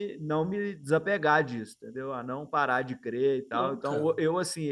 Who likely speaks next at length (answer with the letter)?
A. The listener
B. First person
B